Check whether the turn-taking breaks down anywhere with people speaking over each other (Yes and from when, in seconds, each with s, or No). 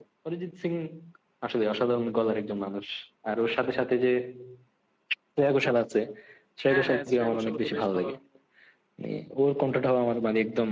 Yes, from 6.7 s